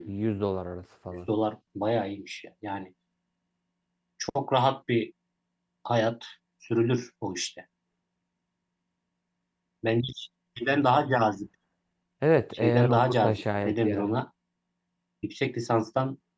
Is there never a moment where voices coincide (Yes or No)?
No